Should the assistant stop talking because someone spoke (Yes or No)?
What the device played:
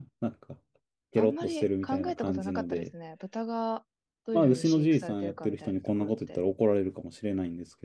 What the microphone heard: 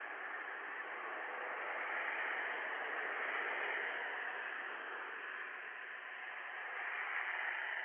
No